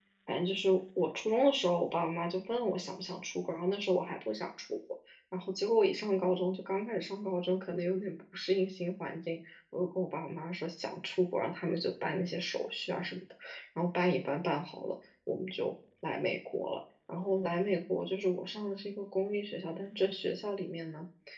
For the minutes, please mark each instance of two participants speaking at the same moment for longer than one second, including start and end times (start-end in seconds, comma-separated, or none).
none